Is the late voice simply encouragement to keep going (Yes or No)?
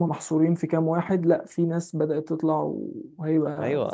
No